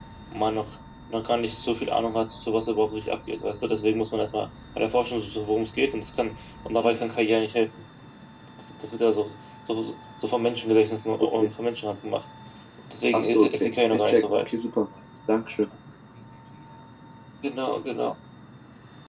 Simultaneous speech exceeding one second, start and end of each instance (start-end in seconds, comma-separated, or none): 13.1-14.5